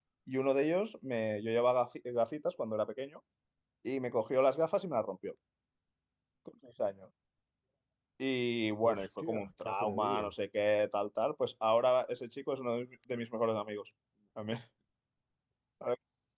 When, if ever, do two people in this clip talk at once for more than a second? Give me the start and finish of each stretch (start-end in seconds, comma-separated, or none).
8.8-10.3